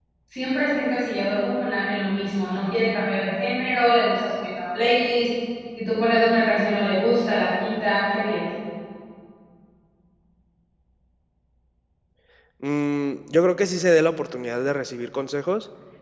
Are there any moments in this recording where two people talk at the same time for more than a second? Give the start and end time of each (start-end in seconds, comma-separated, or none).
none